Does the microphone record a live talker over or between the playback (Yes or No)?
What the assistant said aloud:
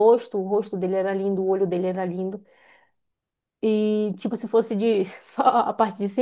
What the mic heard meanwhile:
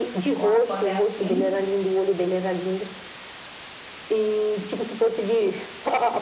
Yes